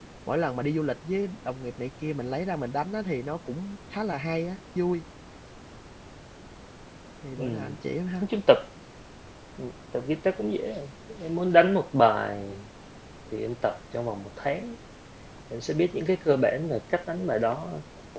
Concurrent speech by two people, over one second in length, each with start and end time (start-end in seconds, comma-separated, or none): none